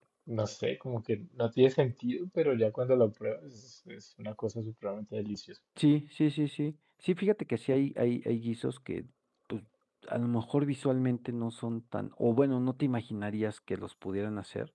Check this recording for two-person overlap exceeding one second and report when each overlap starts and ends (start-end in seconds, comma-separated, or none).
none